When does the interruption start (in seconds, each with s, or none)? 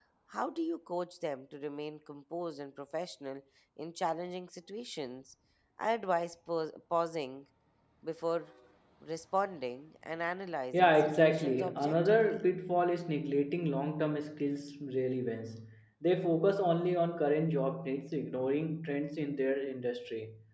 10.7 s